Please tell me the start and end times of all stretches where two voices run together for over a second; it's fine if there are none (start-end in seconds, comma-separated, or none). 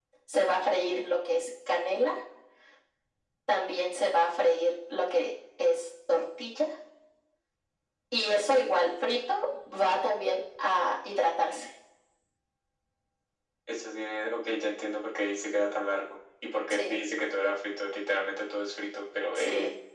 none